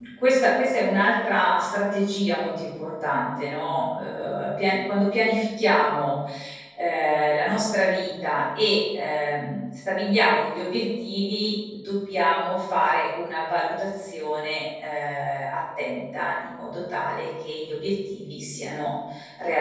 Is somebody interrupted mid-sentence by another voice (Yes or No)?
No